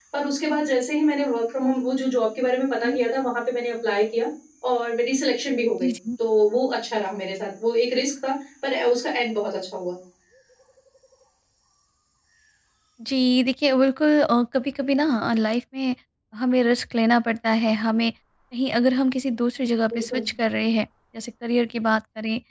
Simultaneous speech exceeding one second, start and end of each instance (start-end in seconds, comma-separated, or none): none